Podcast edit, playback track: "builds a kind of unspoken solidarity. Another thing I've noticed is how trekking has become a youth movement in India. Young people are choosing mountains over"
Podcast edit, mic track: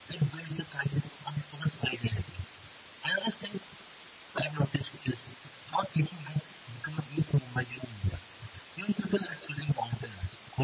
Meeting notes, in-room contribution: none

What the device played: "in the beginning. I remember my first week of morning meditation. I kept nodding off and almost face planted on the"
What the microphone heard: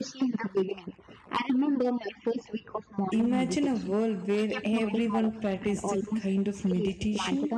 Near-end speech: present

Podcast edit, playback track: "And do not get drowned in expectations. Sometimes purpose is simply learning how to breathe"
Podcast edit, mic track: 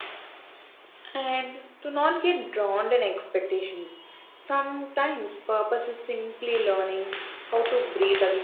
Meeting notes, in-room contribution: none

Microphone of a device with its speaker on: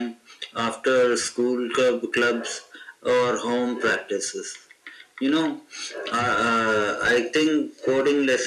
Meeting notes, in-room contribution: none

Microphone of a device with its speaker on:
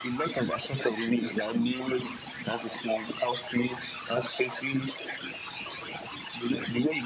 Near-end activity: none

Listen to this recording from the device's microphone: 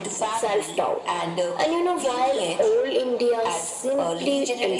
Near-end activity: none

